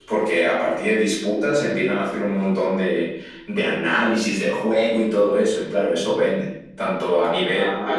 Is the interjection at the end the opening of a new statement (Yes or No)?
Yes